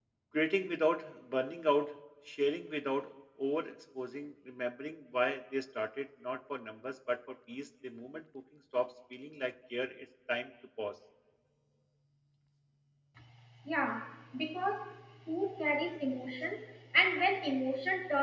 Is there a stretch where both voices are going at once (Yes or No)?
No